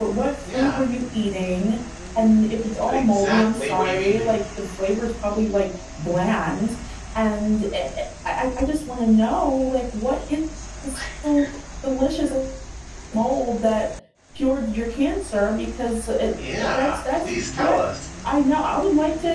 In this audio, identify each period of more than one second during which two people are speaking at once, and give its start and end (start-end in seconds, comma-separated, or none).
2.8-4.3, 16.4-17.8